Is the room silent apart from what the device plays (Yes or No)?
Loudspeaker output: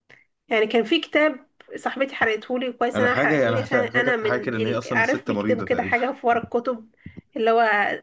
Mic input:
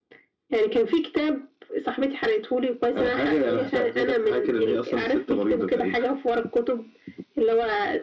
Yes